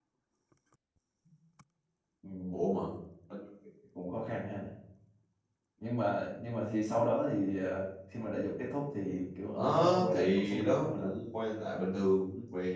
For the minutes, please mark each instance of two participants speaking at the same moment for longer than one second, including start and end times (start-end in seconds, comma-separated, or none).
9.5-11.1